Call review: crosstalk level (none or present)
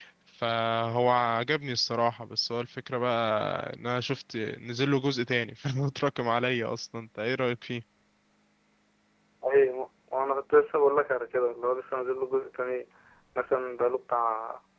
none